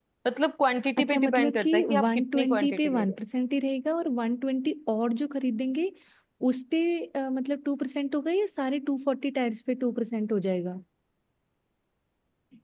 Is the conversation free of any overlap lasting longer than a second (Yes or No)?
No